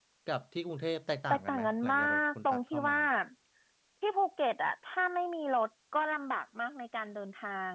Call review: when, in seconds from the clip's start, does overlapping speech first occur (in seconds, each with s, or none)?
1.3 s